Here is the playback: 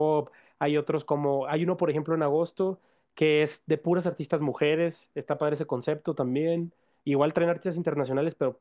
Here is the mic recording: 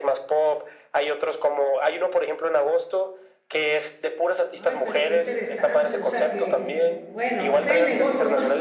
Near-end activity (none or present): present